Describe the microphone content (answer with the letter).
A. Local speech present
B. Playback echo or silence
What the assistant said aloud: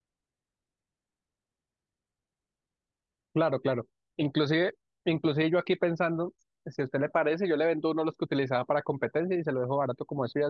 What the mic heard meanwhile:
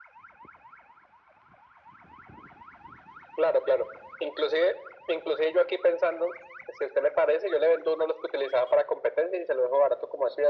B